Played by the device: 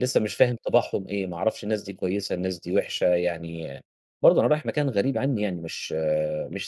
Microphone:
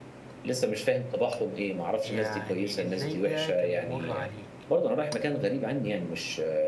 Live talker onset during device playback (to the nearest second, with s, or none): 2 s